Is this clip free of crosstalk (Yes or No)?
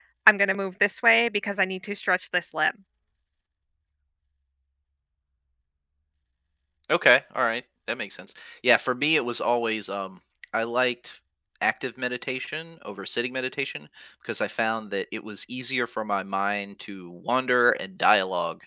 Yes